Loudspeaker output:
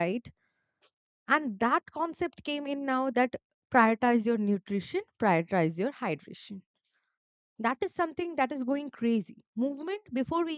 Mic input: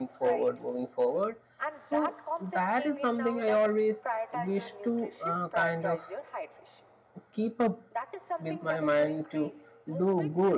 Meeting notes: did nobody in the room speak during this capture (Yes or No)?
No